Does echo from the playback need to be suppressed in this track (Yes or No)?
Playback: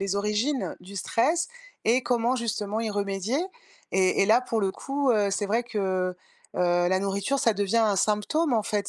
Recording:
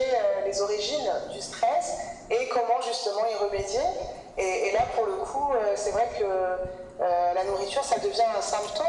Yes